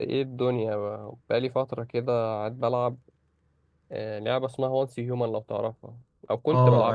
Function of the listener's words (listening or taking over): taking over